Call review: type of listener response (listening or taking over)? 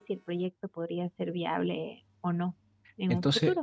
taking over